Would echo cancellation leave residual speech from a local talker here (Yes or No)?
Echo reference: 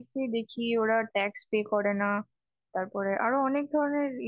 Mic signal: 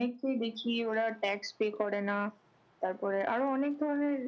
No